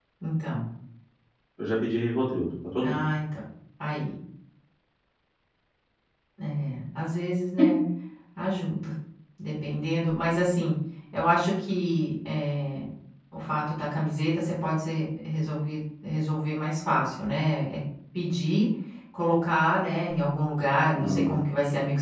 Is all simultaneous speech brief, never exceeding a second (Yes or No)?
Yes